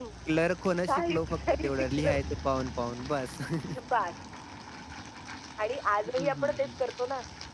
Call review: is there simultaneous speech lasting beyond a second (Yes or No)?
Yes